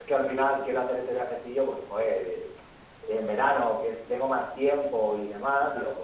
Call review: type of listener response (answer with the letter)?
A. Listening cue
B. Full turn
A